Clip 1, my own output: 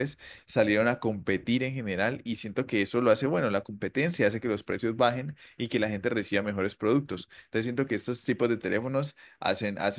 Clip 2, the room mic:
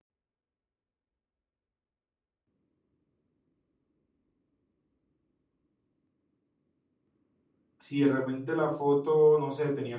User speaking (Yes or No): Yes